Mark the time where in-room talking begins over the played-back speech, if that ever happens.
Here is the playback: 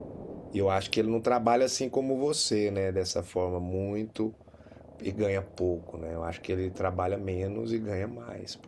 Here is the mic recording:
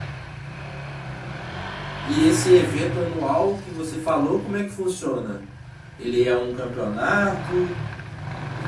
2.0 s

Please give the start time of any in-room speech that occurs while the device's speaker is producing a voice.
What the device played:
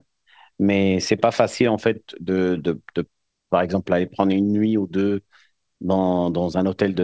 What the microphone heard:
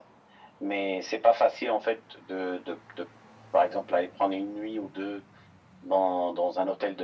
none

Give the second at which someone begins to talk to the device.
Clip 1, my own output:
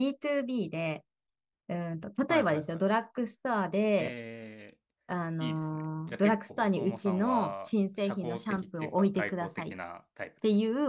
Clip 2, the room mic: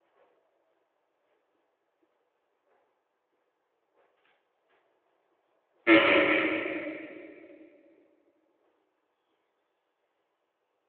5.9 s

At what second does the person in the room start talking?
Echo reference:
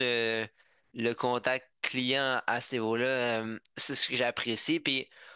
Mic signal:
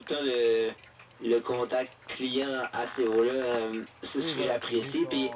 4.2 s

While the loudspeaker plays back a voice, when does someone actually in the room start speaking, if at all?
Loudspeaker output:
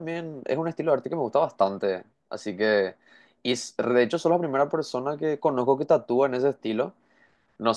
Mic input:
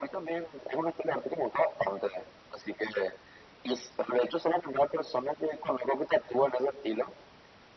none

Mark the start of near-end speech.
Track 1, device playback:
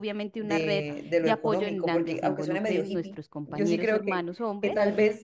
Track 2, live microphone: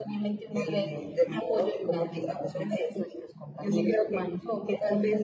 none

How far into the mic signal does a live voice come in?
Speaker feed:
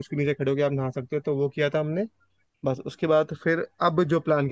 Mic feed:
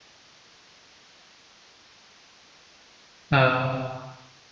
3.3 s

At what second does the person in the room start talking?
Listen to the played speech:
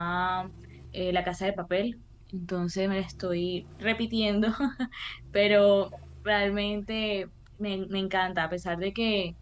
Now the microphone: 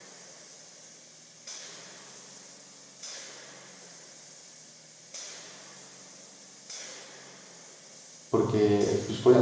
8.3 s

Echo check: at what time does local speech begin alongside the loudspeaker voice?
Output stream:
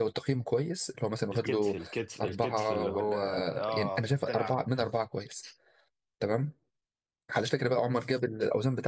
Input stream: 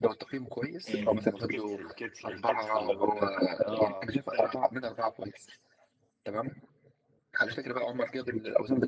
0.9 s

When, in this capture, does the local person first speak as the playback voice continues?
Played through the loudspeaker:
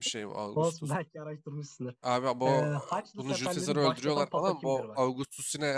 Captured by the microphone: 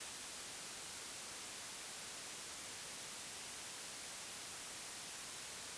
none

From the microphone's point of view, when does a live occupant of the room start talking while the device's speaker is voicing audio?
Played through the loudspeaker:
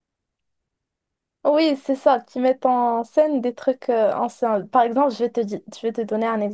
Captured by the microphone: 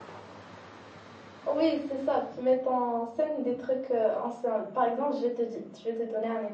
none

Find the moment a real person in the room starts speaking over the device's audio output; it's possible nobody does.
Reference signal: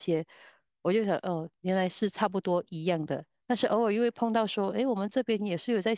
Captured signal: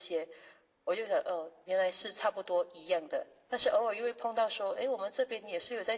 none

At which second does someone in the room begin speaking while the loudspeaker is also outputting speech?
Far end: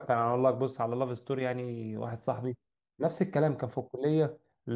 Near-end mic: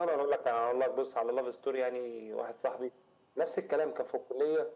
none

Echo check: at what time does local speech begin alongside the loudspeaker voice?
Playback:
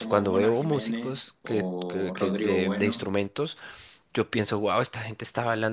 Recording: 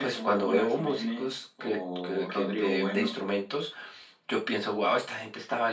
none

